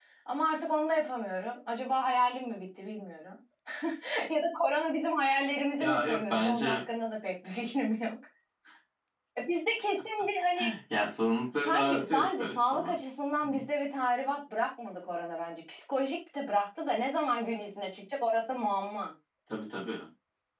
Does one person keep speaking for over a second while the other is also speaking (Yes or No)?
Yes